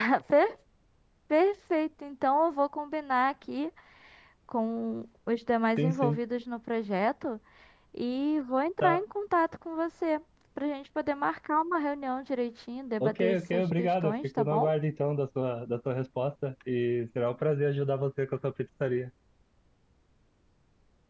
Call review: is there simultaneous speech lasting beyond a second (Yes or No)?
Yes